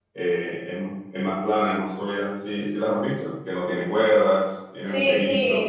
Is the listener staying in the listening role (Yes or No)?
No